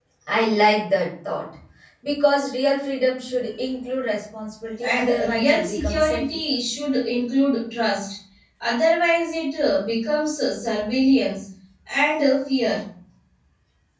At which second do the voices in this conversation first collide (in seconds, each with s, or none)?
4.8 s